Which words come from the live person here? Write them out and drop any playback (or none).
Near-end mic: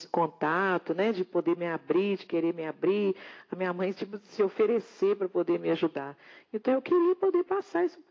none